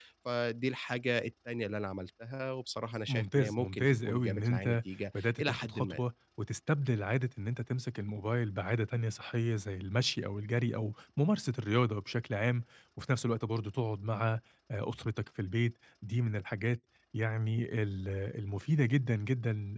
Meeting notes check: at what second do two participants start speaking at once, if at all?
3 s

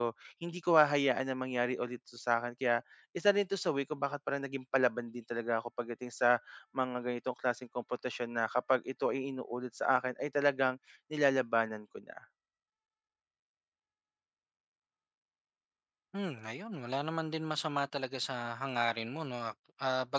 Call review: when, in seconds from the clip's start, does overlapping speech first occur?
none

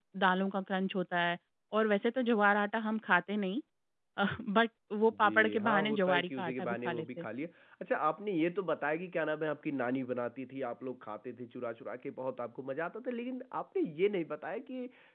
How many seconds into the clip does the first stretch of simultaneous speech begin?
5 s

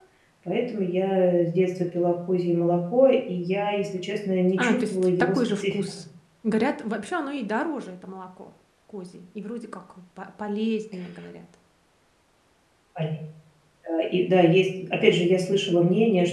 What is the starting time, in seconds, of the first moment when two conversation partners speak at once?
5 s

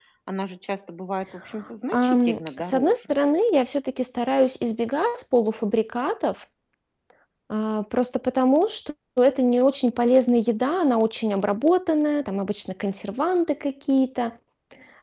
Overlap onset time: 2 s

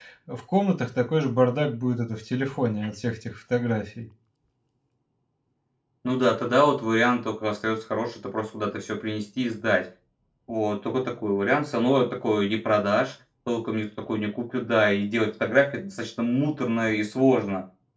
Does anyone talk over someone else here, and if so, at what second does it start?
none

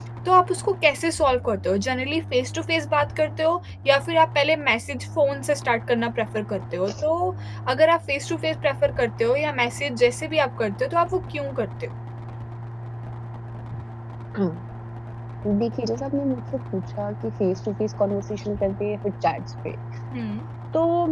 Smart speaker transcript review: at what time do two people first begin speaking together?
none

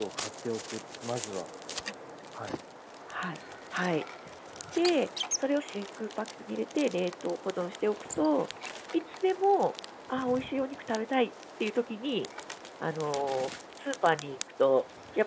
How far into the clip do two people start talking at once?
none

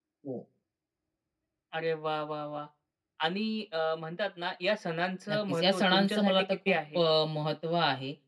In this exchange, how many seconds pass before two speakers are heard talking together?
5 s

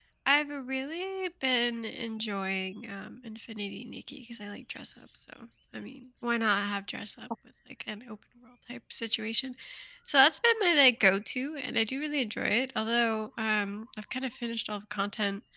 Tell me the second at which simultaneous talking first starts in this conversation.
none

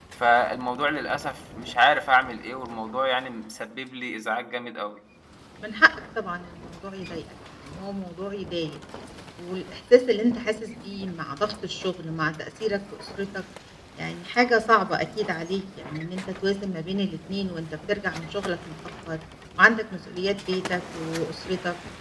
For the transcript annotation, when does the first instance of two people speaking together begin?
none

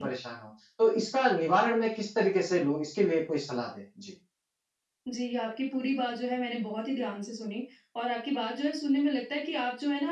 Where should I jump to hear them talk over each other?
none

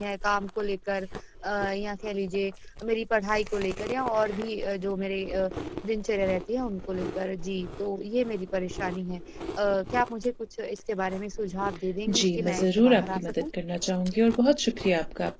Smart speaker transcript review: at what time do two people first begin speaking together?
12 s

